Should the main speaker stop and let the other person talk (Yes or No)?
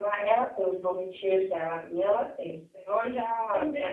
Yes